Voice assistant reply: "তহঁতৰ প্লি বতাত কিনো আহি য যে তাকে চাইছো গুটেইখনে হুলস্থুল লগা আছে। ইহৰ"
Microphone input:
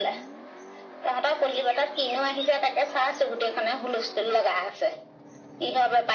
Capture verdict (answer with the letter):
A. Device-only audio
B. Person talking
A